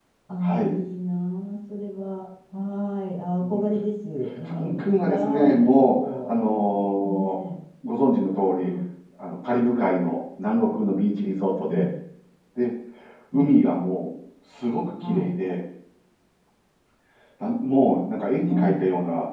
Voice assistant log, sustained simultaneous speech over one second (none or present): present